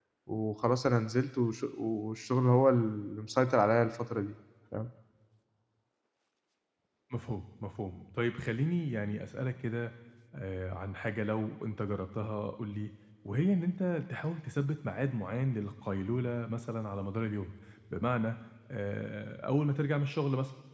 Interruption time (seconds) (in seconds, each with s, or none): none